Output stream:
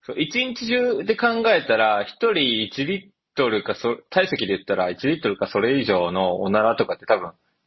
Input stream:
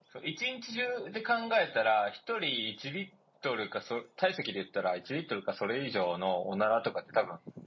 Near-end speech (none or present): none